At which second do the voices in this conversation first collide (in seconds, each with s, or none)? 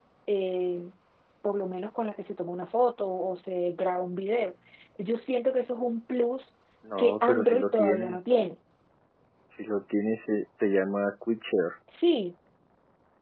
7.0 s